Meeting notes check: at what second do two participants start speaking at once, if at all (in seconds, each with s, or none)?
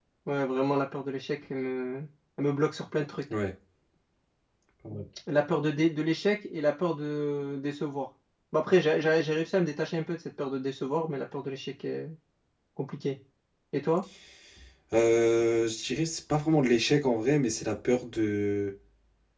none